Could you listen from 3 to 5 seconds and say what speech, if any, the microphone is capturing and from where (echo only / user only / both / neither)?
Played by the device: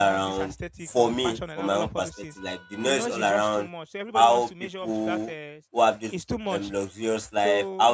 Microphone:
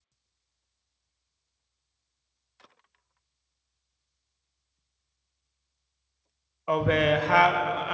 neither